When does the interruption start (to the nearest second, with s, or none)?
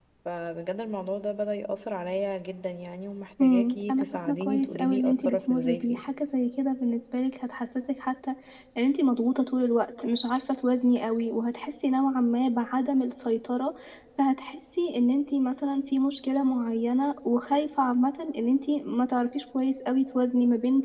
3 s